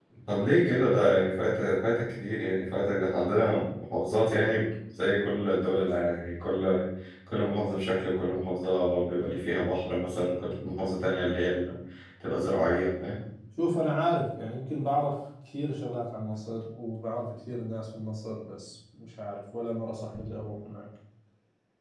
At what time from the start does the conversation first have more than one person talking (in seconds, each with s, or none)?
none